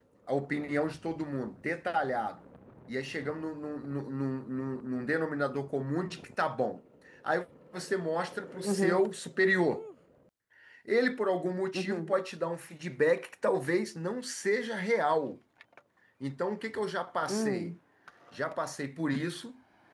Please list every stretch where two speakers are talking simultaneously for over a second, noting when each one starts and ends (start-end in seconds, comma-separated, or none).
none